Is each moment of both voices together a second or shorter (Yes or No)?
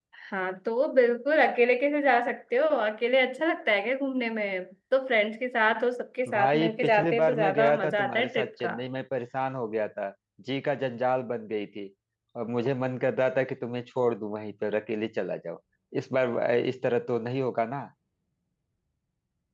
No